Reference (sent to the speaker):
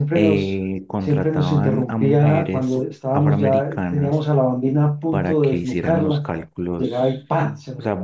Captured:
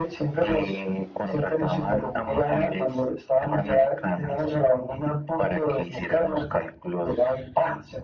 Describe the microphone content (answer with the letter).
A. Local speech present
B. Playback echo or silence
B